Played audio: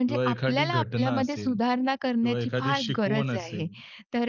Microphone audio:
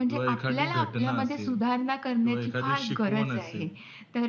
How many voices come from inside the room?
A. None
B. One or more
A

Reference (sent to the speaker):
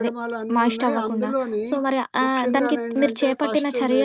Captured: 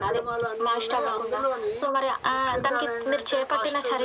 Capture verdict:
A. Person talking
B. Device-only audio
B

